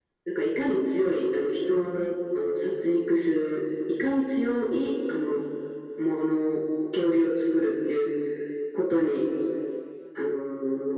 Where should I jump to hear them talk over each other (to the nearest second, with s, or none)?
none